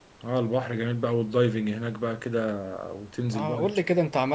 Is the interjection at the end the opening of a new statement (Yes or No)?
Yes